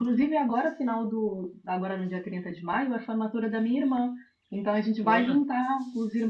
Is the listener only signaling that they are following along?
Yes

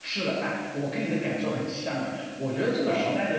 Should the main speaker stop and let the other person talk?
No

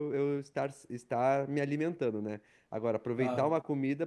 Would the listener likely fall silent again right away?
Yes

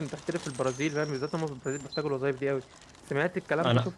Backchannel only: No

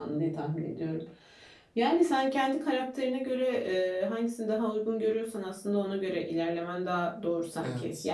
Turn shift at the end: No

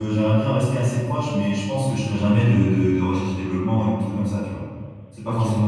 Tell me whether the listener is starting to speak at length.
No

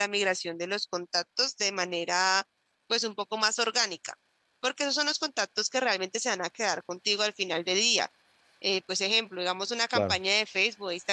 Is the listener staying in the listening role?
Yes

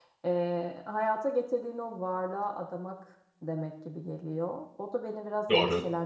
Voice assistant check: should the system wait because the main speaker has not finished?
Yes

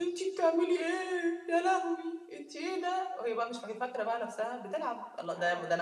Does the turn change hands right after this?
No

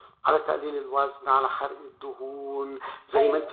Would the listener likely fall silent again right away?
Yes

